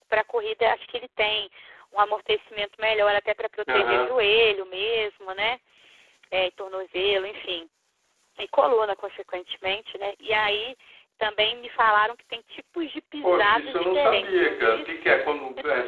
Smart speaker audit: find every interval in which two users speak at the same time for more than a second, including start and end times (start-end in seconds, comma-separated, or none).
13.2-15.1